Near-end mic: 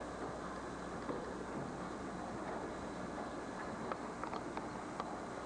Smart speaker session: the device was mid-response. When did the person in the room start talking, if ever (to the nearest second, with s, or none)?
none